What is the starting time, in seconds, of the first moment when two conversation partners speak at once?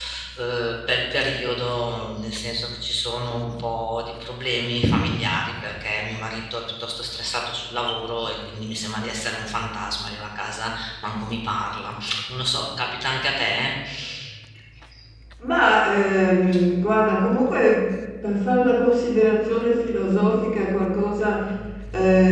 none

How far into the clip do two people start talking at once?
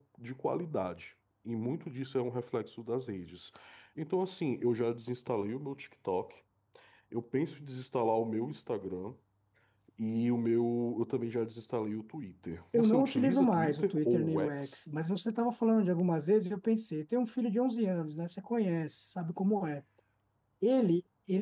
13 s

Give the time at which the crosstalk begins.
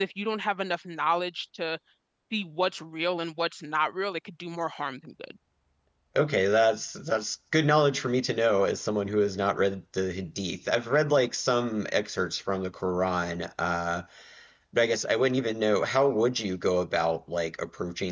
none

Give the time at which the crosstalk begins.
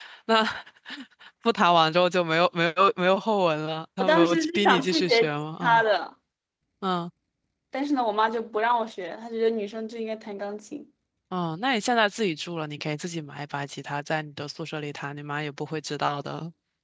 4 s

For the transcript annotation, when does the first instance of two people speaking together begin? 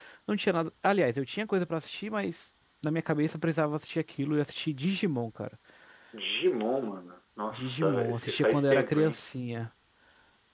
8 s

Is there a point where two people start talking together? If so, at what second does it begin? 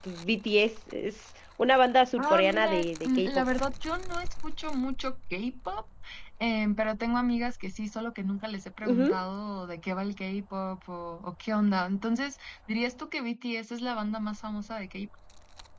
2 s

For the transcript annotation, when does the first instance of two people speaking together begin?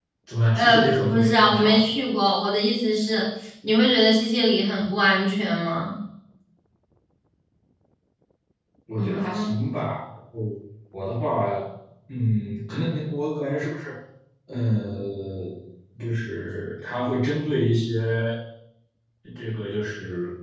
1 s

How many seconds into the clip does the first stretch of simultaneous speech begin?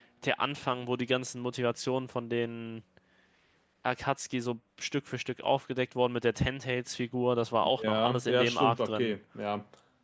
8 s

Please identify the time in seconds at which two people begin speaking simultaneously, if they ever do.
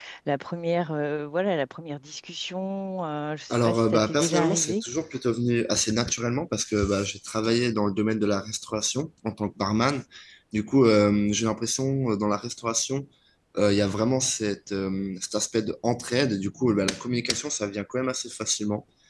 4 s

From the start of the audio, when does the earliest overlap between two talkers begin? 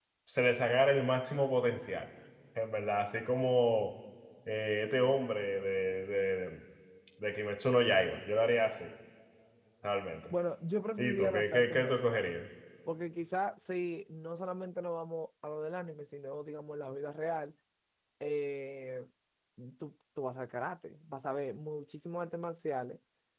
11 s

